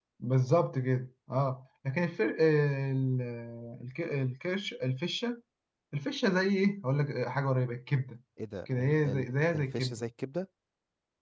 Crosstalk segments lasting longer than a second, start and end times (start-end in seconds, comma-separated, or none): 8.7-10.0